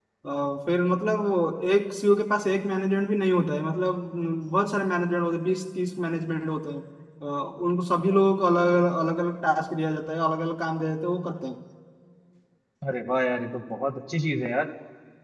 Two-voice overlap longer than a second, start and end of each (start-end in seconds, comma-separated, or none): none